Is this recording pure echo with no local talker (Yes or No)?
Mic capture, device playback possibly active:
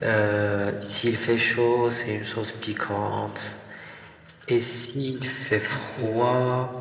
No